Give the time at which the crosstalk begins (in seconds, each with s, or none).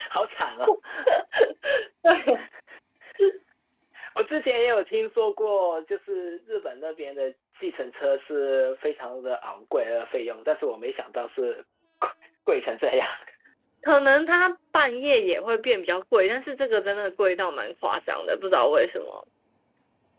none